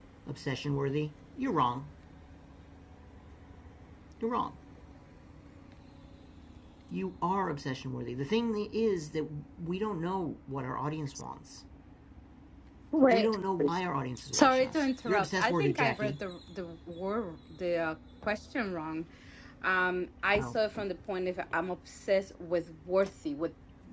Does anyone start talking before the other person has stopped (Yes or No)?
Yes